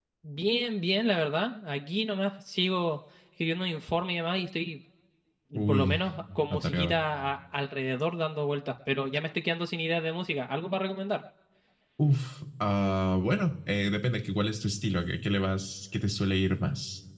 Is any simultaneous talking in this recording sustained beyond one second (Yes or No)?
No